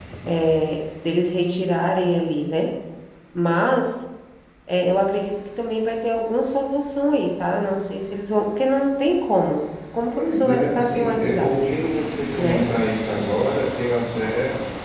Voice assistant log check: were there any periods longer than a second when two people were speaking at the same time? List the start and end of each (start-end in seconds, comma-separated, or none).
10.1-11.5